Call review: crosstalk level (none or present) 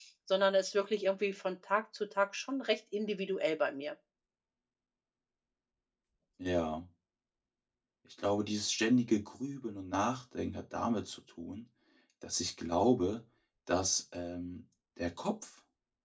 none